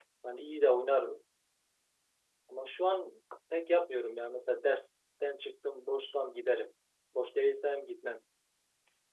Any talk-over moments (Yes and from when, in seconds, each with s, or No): No